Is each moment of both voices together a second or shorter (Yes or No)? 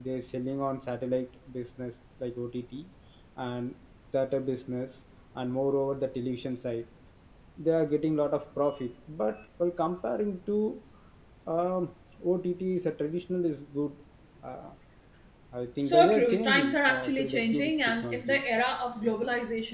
No